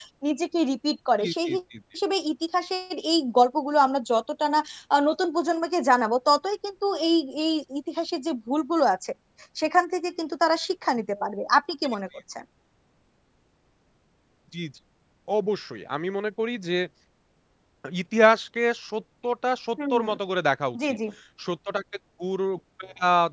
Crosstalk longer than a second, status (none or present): none